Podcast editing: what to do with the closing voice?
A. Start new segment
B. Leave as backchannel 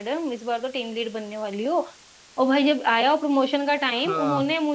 B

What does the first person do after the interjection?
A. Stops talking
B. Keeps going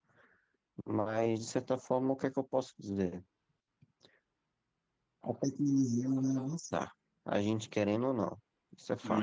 A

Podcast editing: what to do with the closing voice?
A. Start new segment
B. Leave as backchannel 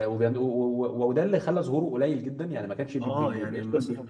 A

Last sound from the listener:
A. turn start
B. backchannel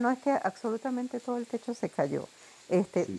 B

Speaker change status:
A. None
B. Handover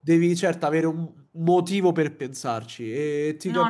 A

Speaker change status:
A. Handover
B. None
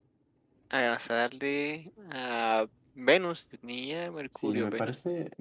A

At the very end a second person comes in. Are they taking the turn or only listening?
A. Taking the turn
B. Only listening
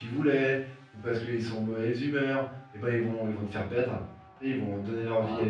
B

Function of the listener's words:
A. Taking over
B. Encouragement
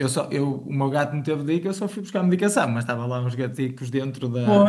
B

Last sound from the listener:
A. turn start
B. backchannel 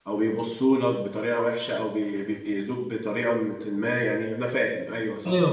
A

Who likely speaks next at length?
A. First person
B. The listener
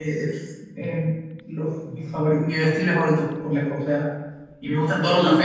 A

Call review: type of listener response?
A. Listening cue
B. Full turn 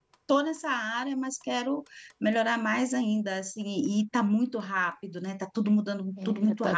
B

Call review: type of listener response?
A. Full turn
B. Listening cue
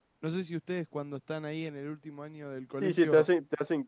A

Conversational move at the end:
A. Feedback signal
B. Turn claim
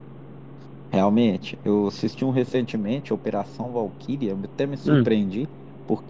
A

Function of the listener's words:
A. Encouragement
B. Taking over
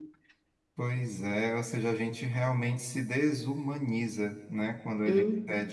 A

